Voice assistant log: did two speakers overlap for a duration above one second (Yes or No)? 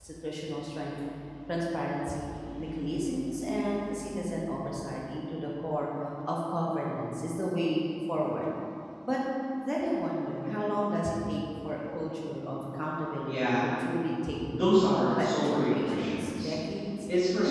Yes